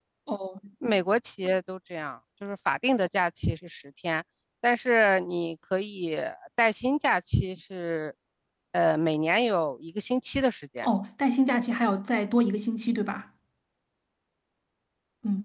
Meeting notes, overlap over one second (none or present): none